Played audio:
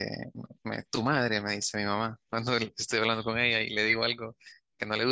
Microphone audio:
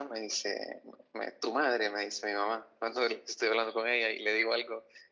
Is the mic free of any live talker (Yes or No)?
Yes